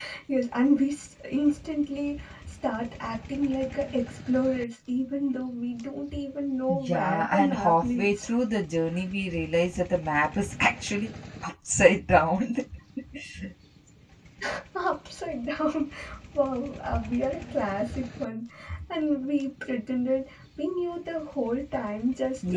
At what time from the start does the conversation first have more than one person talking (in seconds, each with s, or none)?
6.7 s